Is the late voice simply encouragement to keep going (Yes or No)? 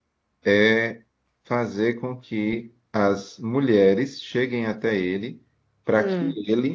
Yes